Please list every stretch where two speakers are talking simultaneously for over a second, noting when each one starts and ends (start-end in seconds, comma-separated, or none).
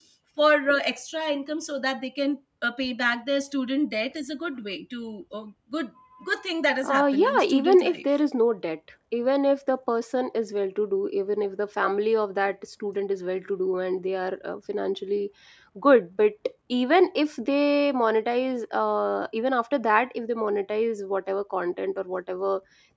6.8-8.1